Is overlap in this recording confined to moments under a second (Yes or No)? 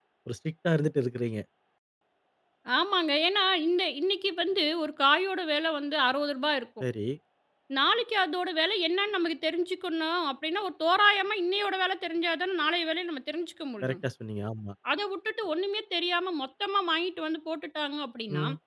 Yes